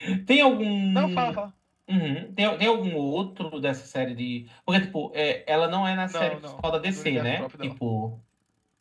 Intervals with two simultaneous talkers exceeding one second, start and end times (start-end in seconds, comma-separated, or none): 6.1-7.8